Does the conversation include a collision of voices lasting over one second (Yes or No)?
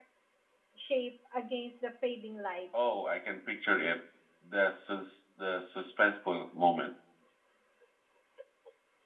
No